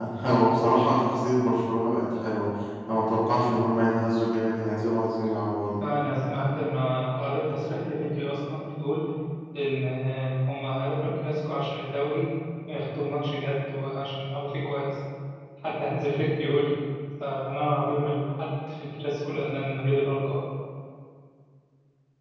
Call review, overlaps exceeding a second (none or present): none